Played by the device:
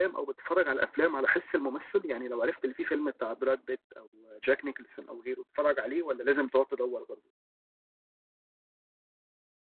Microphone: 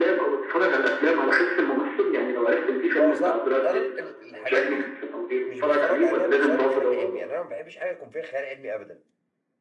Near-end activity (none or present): present